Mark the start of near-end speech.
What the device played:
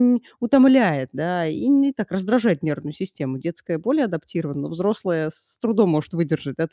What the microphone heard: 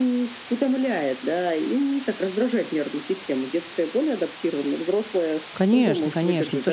5.5 s

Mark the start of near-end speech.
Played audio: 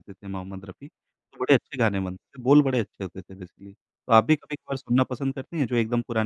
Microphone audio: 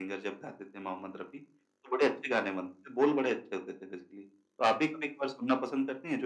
none

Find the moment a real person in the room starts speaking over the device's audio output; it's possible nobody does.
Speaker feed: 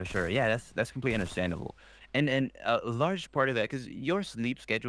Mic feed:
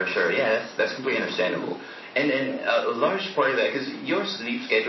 1.4 s

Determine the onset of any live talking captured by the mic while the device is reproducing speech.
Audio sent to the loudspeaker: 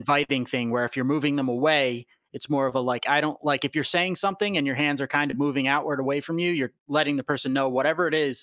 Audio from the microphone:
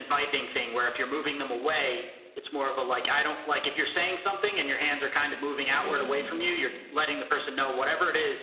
5.7 s

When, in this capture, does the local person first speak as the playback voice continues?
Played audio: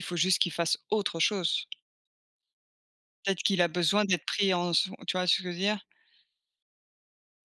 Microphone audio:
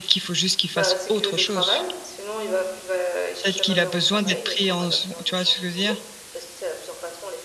0.7 s

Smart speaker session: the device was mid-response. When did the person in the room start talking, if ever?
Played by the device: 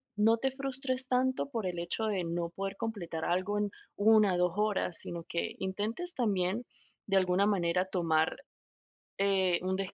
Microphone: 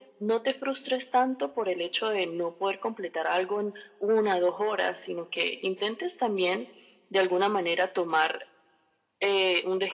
none

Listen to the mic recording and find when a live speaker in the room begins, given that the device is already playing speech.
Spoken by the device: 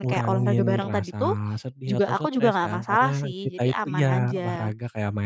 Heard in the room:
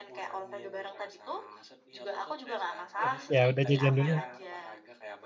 3.0 s

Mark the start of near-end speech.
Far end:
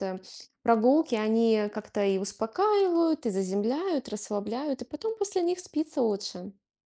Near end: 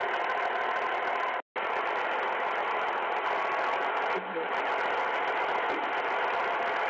4.1 s

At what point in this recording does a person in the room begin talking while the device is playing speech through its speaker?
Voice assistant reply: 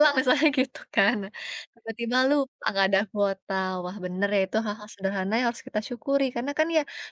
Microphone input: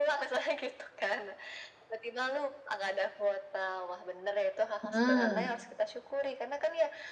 4.9 s

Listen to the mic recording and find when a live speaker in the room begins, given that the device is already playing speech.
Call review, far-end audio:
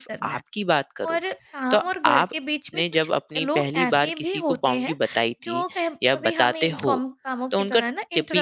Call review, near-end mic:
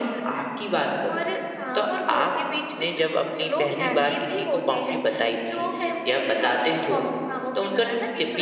none

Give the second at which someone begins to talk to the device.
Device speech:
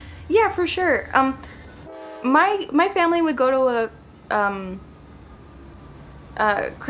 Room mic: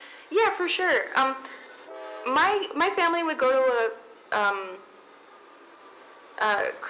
none

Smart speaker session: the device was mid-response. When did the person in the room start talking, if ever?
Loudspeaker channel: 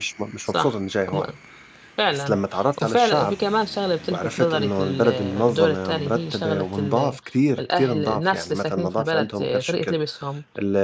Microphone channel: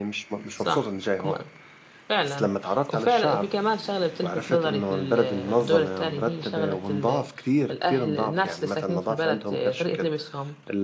none

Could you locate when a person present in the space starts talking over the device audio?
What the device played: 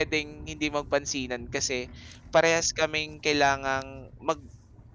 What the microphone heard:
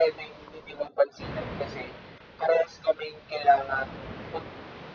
none

